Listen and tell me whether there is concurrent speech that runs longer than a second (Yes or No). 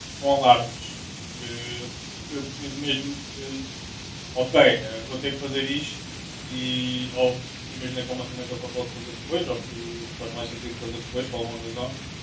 No